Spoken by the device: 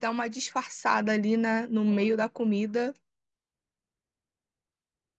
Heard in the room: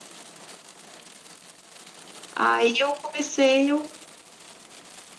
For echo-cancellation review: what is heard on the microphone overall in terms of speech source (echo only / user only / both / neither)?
user only